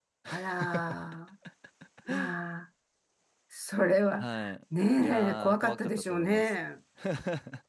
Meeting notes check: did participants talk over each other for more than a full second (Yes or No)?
Yes